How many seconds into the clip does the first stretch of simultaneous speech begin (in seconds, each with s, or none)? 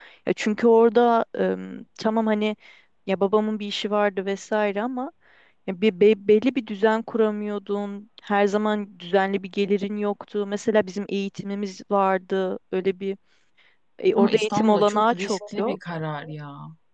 14.2 s